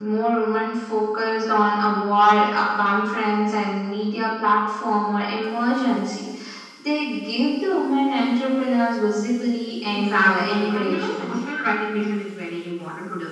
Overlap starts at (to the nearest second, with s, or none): 10 s